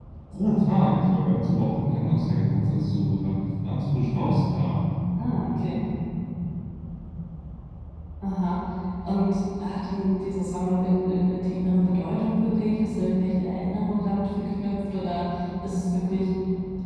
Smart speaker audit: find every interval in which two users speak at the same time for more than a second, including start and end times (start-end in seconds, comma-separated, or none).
none